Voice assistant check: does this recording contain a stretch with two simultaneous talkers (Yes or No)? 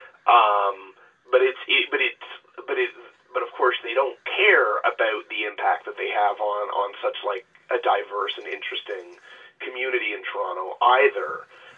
No